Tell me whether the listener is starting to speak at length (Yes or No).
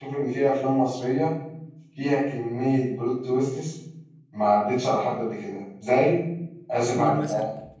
Yes